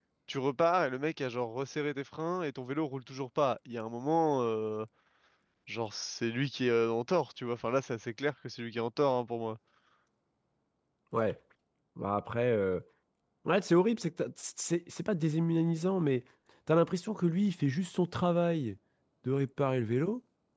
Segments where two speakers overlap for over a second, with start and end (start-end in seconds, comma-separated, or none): none